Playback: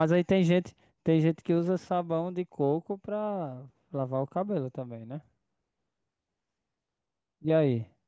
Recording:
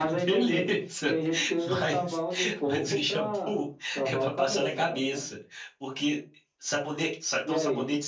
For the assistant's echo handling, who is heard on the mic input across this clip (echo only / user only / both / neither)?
both